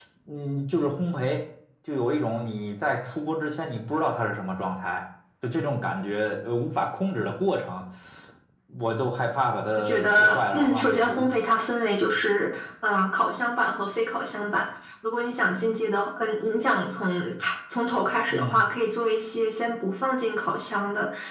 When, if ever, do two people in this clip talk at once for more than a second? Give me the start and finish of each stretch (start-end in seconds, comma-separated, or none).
9.7-11.3